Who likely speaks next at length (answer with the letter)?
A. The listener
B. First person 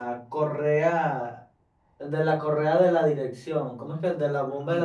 A